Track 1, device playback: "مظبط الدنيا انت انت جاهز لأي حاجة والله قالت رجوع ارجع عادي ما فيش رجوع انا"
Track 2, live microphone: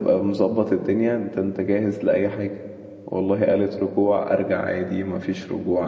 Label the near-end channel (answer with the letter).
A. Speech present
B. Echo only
B